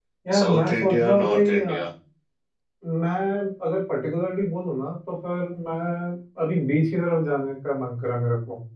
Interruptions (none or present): present